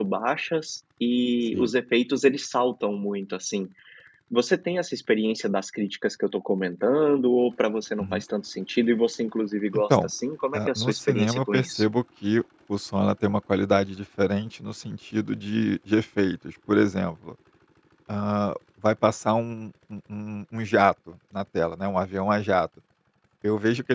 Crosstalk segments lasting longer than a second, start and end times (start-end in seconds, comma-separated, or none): 10.5-11.8